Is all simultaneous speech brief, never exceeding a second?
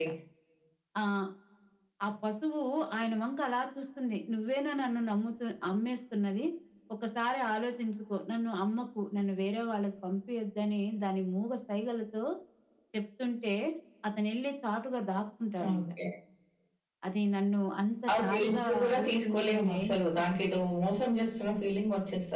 No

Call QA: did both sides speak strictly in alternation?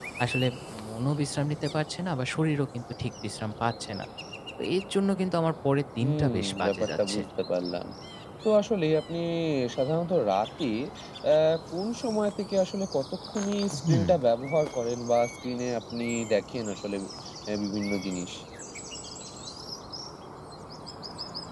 No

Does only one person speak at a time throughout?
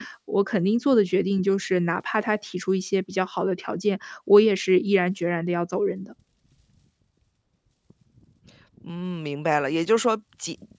Yes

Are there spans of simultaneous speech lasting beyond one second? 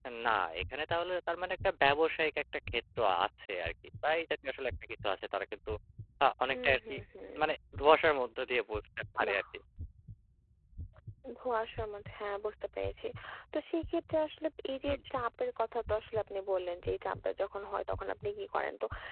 No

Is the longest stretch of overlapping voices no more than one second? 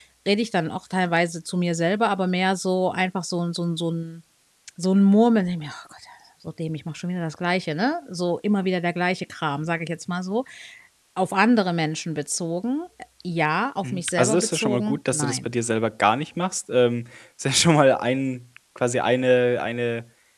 No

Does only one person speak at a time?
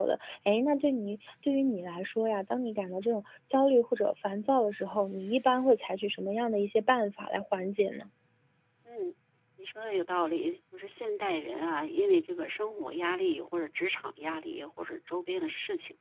Yes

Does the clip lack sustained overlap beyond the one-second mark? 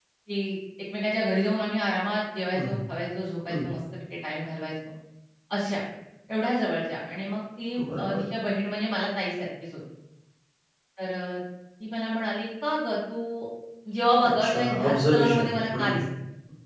No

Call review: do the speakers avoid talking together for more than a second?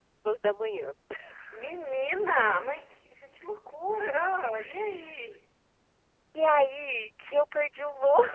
Yes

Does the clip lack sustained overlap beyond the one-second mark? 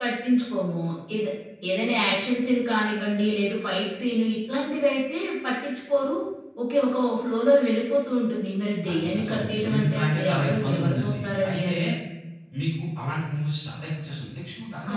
No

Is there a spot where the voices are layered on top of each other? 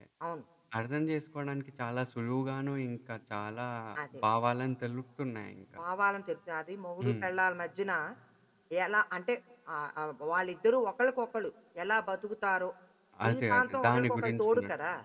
Yes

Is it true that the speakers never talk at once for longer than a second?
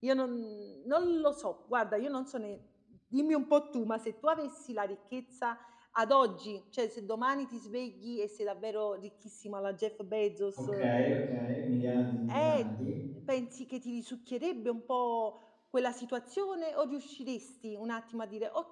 Yes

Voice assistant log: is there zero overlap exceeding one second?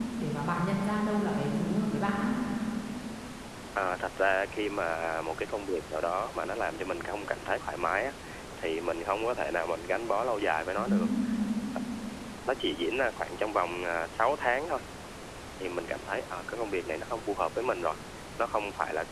Yes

